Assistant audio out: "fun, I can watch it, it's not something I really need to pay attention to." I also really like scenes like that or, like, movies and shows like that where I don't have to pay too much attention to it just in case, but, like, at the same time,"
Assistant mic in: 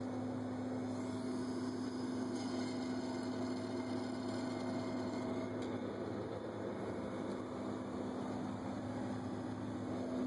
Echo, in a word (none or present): none